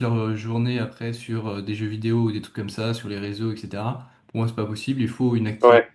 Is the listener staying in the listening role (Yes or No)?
Yes